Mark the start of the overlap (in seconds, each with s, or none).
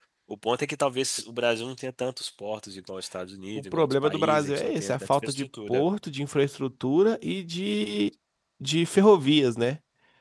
3.5 s